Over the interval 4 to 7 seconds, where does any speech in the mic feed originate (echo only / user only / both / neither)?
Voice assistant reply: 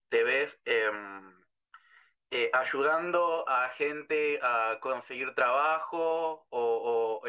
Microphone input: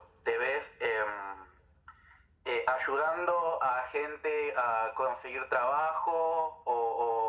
echo only